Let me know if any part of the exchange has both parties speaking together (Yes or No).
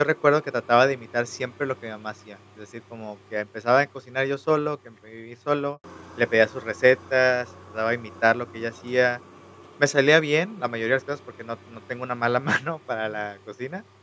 No